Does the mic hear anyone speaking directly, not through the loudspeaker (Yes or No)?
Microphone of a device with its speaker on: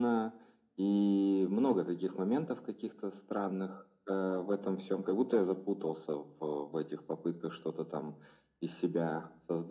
No